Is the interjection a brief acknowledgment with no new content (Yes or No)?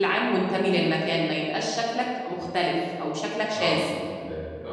No